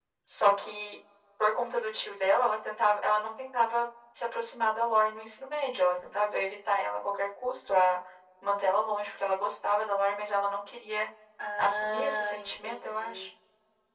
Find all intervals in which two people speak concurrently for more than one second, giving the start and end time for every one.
11.6-13.3

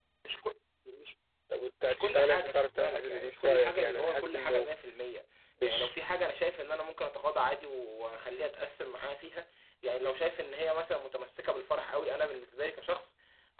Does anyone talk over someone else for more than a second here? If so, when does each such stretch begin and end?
1.8-4.7

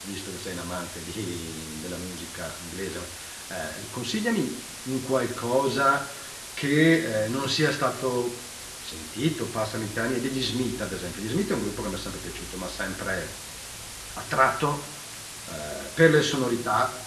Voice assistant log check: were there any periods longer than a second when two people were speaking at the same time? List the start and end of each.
none

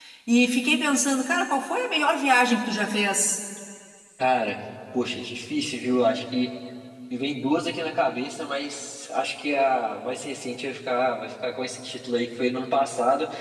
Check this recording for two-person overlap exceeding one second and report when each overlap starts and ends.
none

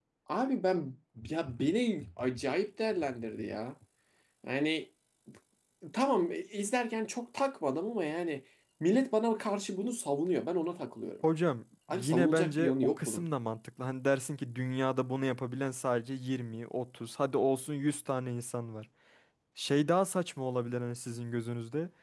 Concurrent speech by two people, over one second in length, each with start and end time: 11.9-13.2

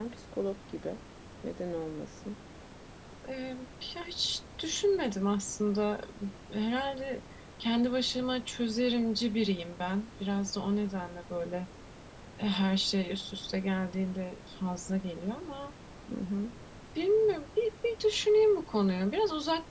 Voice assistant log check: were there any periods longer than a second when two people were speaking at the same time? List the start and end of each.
none

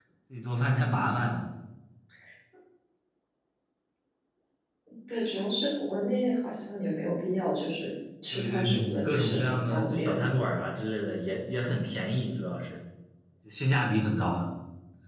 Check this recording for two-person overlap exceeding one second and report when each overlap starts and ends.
8.3-10.3

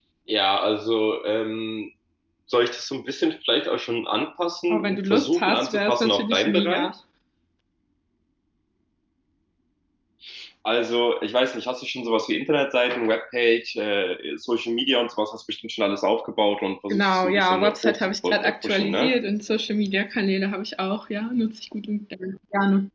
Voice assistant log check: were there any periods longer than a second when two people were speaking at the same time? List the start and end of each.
4.7-6.9, 16.9-19.2

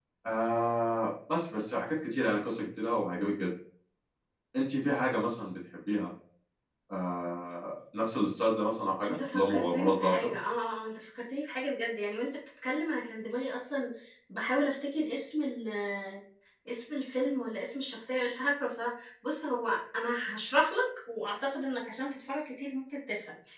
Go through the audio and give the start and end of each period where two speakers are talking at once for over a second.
9.1-10.3

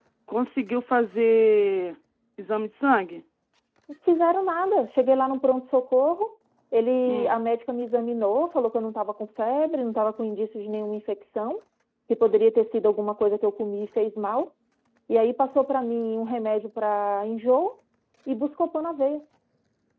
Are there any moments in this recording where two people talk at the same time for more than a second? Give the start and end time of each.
none

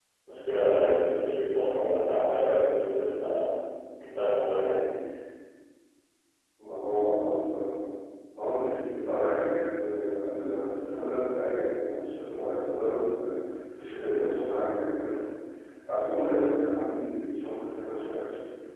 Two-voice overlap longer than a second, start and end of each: none

